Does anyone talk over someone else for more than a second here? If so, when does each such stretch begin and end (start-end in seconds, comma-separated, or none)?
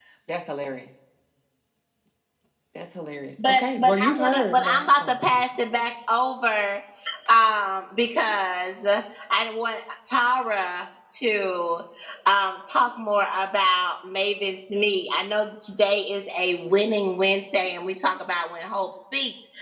3.5-4.9